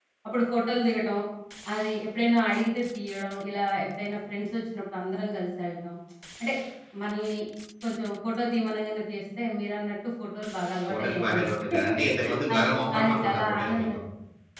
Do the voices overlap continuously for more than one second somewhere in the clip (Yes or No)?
Yes